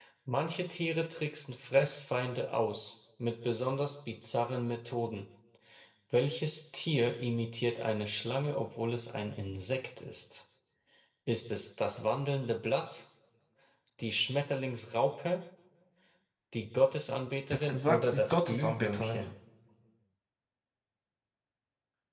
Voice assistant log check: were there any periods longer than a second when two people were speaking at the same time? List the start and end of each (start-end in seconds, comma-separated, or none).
17.5-19.2